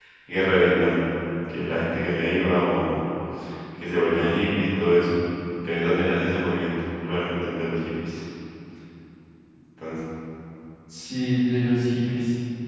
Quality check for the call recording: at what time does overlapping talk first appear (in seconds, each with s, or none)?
none